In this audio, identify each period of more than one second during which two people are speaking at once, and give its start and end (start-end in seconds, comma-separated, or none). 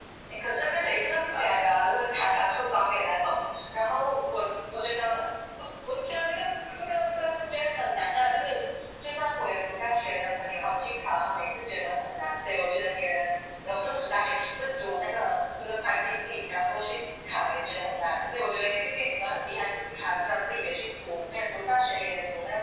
0.6-2.2